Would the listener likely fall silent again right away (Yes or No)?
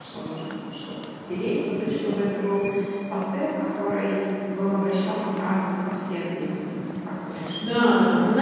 No